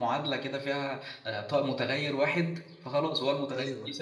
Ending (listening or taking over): listening